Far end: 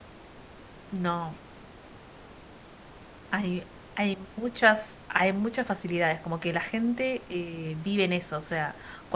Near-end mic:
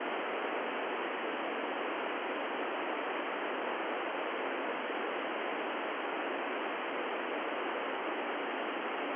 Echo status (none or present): none